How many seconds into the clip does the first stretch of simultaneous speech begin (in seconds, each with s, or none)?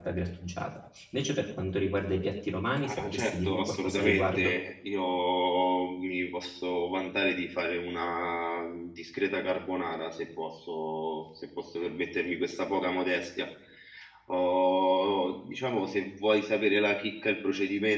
2.8 s